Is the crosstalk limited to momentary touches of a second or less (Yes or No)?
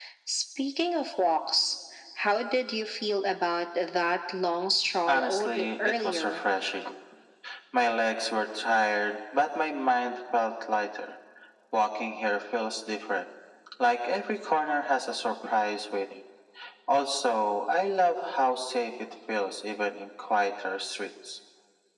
No